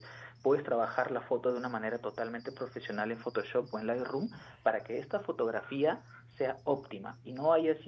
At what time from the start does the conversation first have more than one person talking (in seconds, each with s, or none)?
none